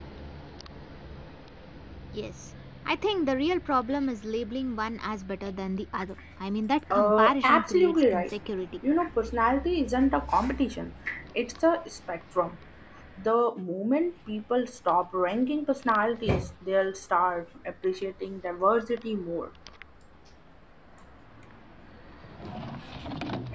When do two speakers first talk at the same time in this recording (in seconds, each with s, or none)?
6.9 s